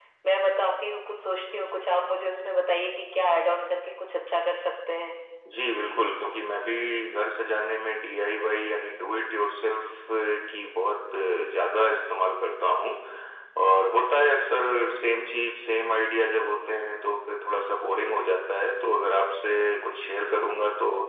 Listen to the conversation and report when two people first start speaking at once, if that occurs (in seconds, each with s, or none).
none